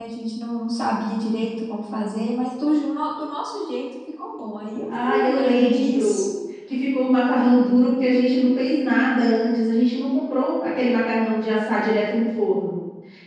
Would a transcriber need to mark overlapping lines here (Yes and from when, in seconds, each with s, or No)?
Yes, from 4.9 s